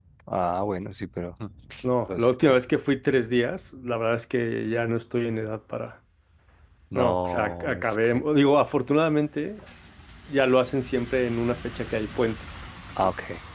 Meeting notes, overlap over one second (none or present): present